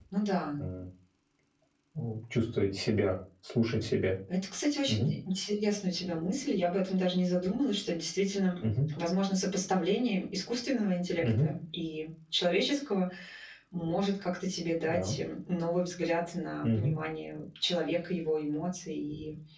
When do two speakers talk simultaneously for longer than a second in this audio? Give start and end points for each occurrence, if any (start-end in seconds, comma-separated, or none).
none